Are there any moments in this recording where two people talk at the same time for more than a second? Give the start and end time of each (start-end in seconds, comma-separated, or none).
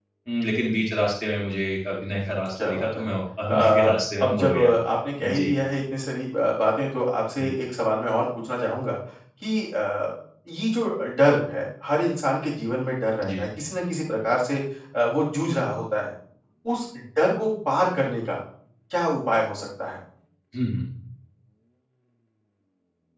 3.5-4.7